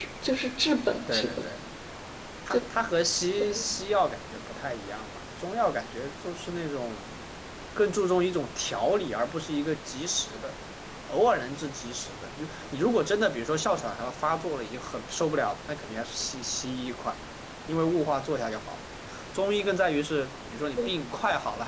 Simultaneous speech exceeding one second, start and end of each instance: none

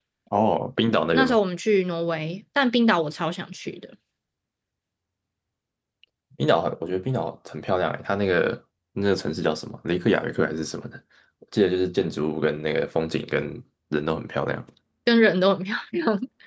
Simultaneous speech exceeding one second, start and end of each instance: none

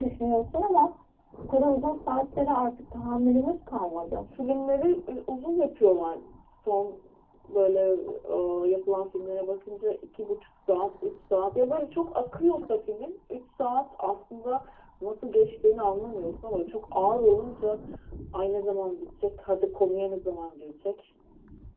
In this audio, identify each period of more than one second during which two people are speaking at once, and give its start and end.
none

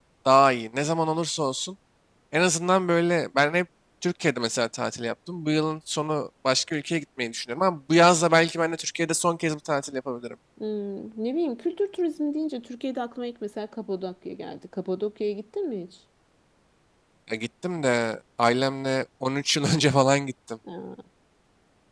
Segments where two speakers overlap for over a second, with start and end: none

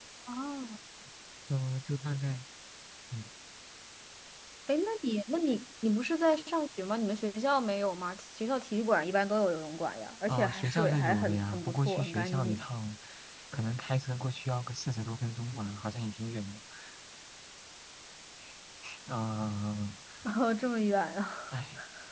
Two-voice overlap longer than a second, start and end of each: 10.3-12.6

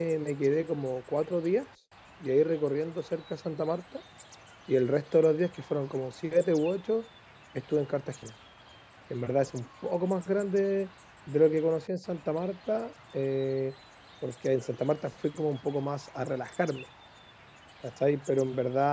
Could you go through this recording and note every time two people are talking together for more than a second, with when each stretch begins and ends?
none

